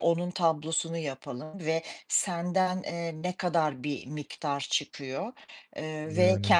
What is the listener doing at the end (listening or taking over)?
listening